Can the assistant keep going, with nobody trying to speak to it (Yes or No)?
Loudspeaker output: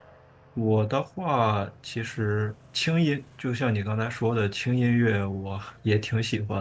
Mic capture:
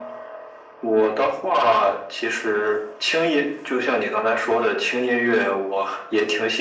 Yes